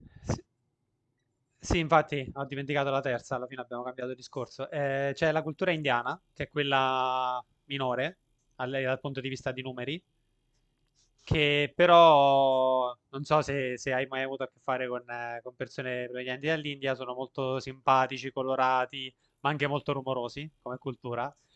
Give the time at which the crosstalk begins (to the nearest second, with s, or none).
none